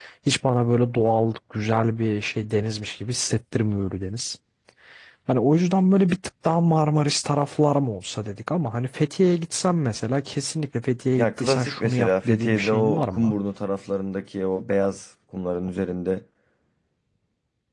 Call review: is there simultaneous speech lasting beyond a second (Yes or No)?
Yes